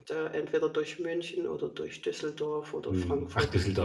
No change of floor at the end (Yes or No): No